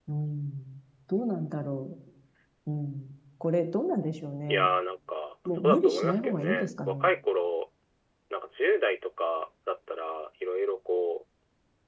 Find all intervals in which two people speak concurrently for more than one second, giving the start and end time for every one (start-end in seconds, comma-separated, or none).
5.6-7.1